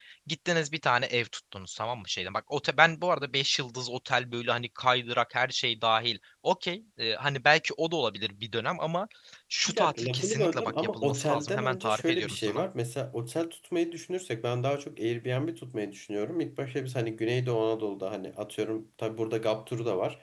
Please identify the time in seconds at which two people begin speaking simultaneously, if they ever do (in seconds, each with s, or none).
9.7 s